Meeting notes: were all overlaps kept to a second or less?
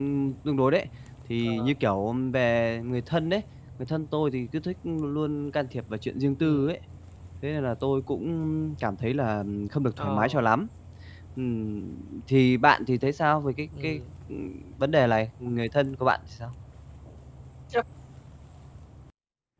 Yes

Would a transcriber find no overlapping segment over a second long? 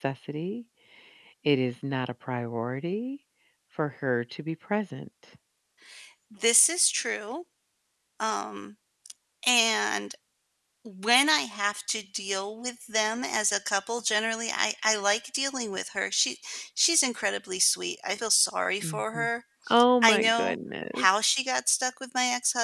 Yes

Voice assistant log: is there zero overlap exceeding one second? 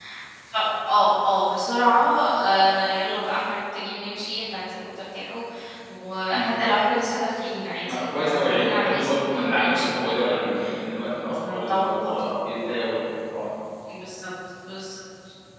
No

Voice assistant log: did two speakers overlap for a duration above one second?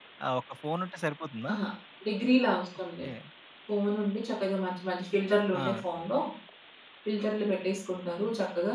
No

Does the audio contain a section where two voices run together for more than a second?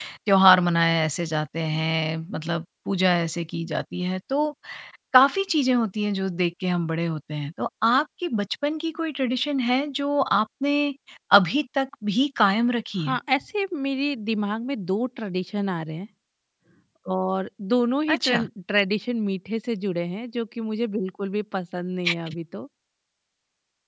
No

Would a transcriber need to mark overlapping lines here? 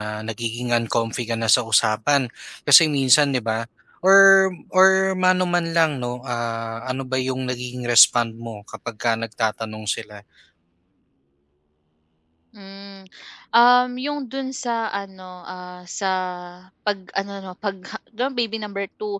No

